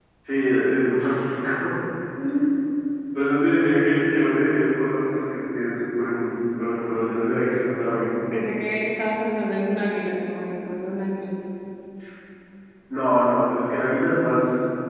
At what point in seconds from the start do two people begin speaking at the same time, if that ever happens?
none

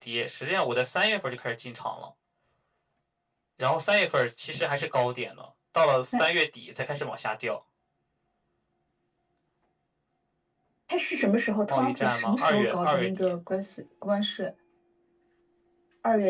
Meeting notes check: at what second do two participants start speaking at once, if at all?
11.7 s

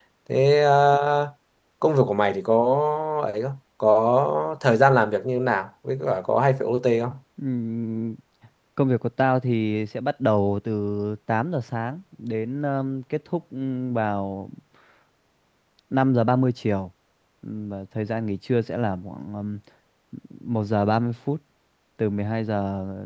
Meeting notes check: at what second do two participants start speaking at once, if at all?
none

